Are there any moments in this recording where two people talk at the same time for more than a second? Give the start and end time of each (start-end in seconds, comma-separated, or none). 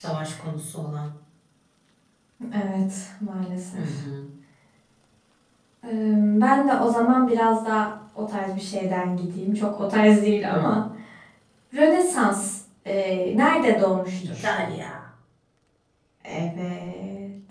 none